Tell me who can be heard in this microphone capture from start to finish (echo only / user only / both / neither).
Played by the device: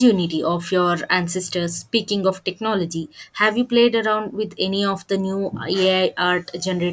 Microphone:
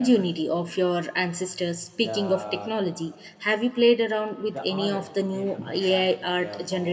both